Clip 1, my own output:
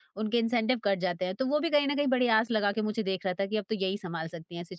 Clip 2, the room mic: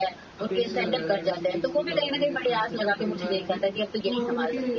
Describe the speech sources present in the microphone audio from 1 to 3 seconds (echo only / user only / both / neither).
both